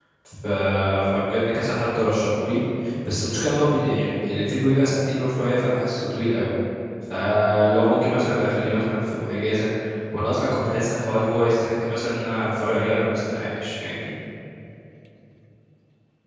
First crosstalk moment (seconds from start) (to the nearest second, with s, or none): none